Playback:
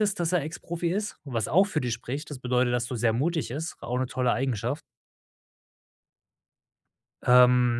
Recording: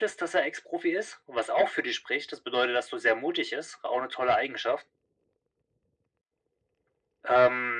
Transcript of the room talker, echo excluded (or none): none